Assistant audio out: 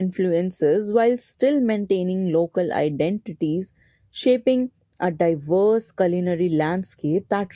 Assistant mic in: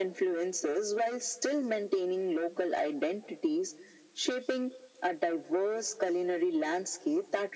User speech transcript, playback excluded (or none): none